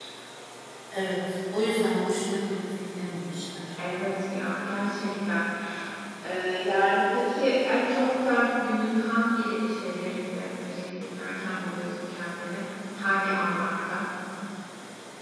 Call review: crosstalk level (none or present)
none